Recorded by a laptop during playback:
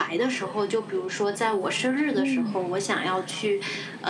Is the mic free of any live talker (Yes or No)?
No